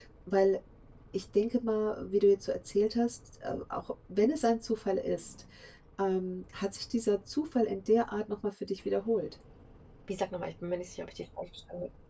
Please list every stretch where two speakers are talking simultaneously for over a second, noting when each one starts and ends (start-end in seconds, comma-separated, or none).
none